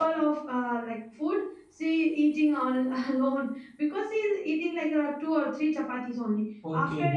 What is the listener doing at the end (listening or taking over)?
listening